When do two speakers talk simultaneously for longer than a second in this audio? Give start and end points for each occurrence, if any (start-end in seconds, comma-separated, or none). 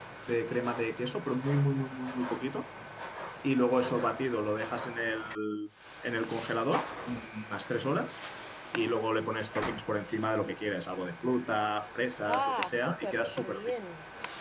12.3-13.7